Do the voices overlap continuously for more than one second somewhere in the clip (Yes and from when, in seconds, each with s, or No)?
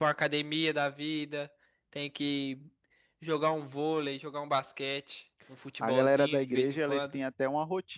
Yes, from 5.8 s